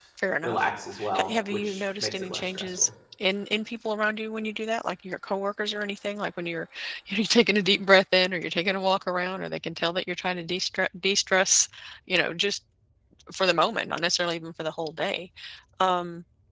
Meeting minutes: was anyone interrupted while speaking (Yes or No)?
Yes